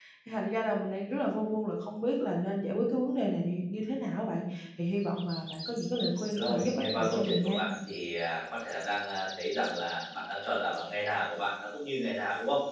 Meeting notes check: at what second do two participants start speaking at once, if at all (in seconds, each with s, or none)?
6.4 s